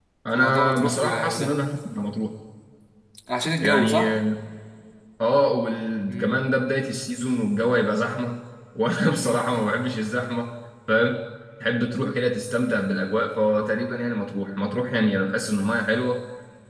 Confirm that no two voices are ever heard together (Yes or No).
No